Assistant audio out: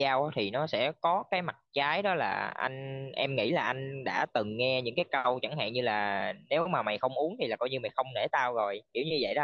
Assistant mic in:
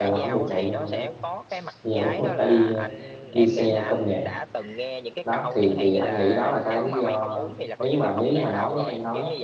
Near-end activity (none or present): present